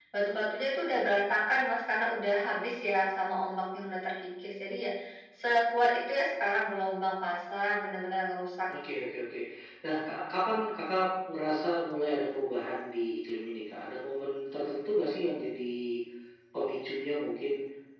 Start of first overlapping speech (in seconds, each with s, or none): none